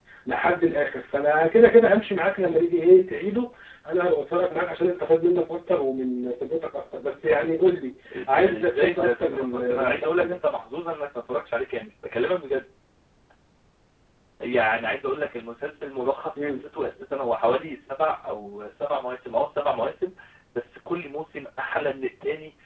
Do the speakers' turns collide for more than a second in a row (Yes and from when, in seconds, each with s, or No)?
Yes, from 8.1 s